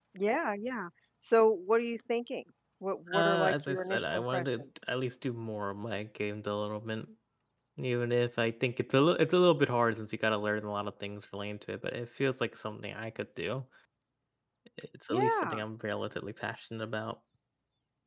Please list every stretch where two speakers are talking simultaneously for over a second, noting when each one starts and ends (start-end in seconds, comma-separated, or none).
3.1-4.6